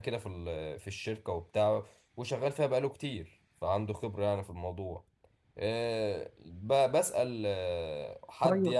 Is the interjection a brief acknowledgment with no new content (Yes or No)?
Yes